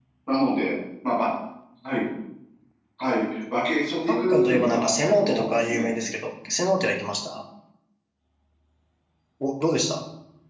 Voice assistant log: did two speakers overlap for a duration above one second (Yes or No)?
Yes